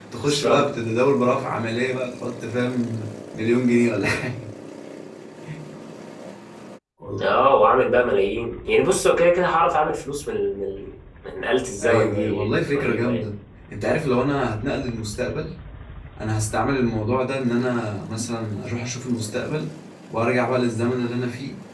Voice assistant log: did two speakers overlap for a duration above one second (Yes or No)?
Yes